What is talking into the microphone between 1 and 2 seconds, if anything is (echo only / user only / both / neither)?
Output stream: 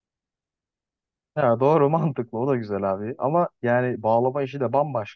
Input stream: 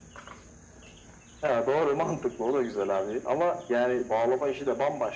echo only